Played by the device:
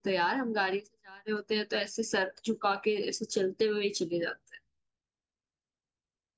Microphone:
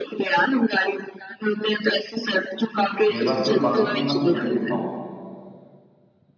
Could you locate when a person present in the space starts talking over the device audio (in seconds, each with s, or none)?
3.1 s